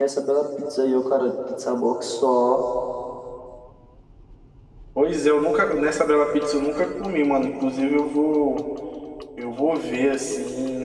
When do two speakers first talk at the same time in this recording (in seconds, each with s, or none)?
none